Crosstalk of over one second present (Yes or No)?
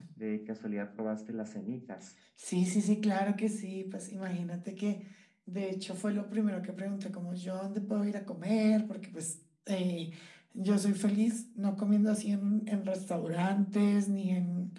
No